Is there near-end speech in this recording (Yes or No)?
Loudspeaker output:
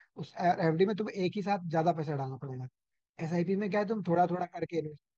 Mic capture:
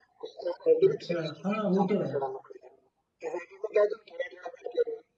Yes